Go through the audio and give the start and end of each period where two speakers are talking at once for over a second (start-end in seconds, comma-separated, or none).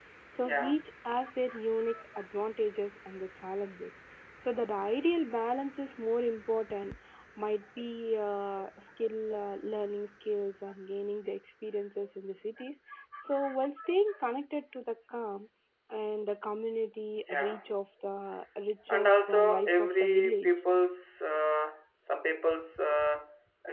18.9-20.5